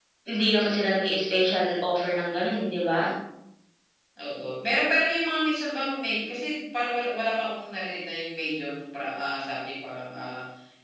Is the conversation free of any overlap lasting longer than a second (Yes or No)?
Yes